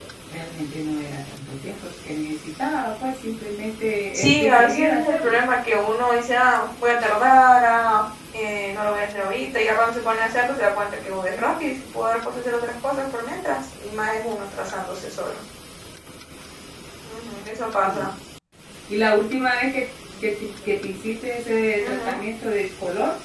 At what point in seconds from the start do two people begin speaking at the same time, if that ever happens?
4.1 s

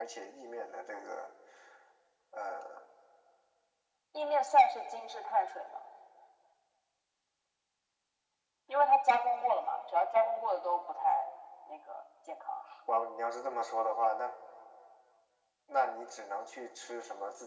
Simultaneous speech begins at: none

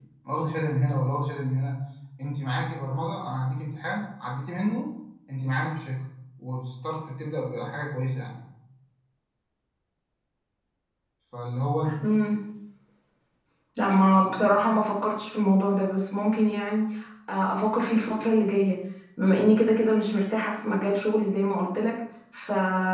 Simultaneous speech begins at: none

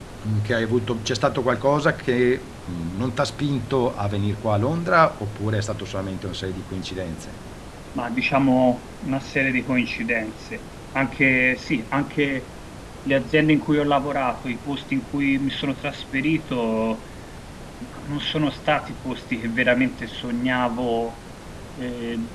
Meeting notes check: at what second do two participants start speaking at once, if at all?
none

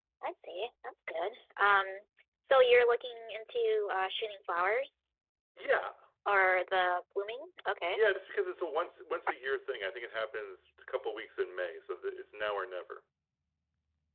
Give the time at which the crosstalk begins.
none

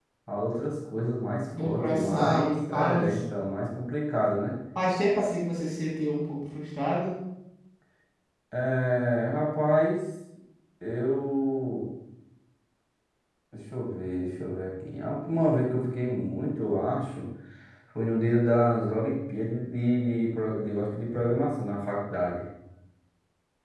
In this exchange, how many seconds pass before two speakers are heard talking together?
1.5 s

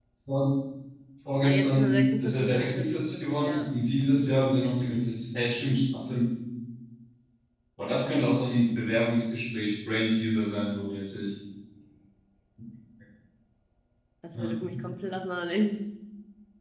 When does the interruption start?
1.4 s

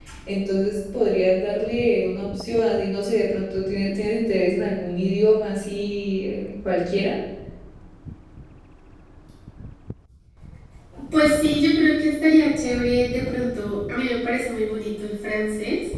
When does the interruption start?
none

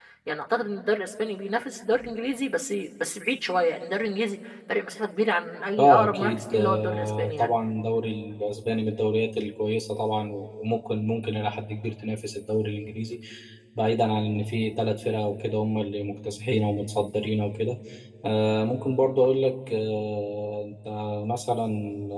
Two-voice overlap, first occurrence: 5.8 s

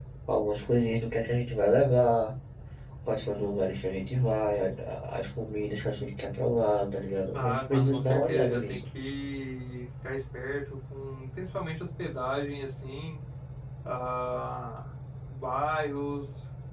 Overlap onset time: 7.3 s

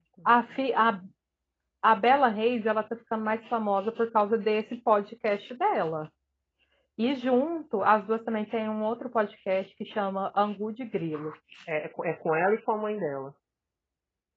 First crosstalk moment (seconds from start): none

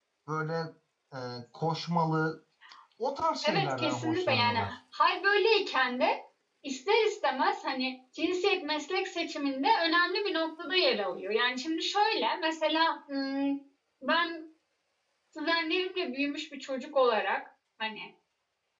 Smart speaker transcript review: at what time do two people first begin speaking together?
3.4 s

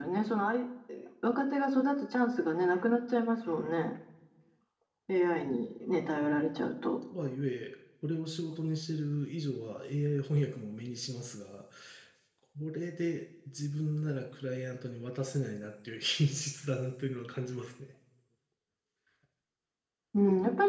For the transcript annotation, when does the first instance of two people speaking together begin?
none

